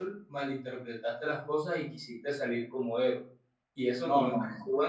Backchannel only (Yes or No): No